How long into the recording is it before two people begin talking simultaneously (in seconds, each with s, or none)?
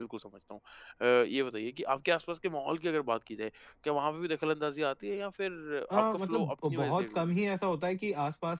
5.9 s